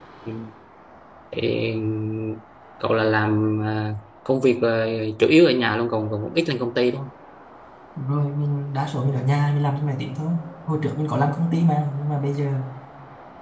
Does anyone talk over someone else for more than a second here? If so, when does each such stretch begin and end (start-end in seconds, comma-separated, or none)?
none